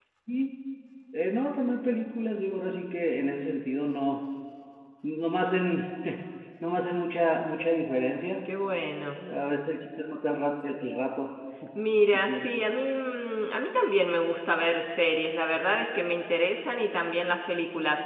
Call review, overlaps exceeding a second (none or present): none